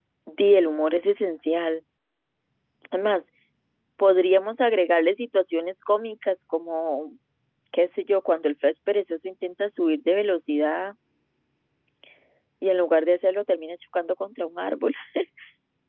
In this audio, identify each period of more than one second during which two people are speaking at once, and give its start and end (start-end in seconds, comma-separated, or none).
none